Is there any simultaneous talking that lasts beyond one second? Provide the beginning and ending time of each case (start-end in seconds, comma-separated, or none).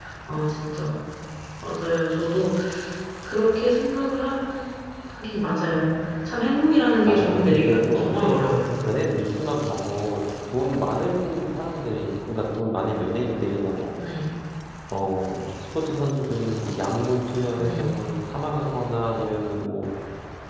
7.1-8.4